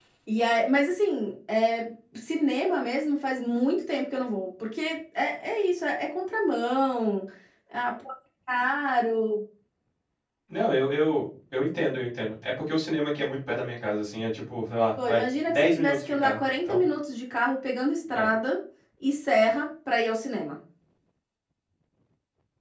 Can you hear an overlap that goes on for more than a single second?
Yes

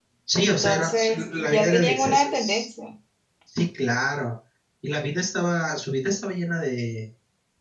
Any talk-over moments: Yes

